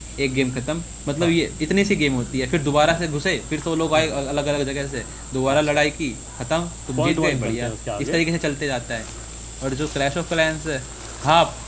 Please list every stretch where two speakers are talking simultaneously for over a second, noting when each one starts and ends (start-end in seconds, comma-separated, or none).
7.0-8.2